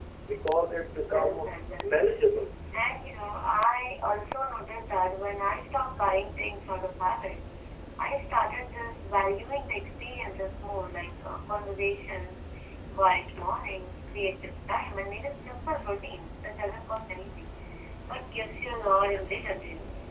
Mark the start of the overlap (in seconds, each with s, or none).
1.0 s